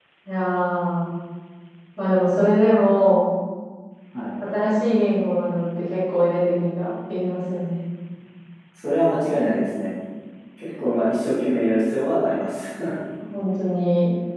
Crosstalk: none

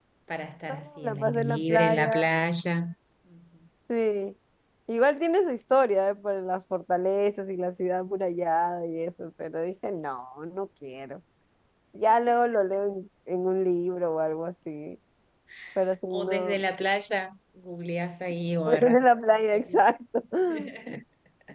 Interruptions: present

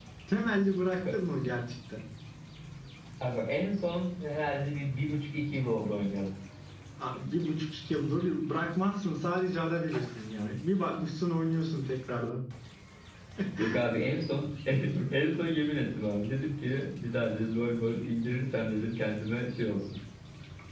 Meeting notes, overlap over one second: none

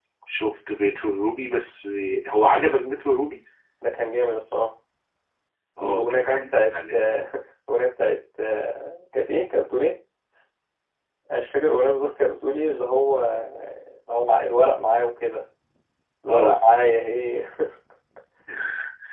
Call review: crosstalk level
present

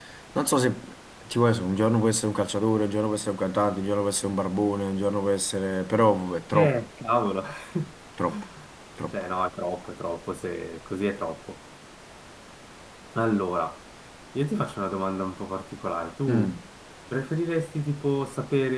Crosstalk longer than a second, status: none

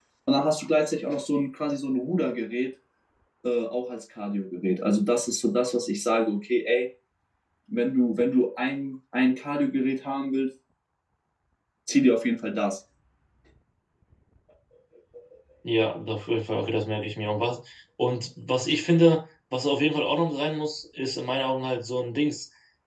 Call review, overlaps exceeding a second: none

